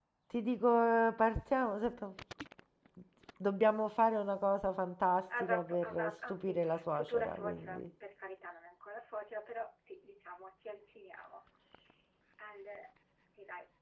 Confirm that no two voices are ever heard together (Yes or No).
No